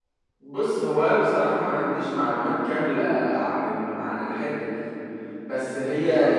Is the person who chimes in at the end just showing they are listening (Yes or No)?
Yes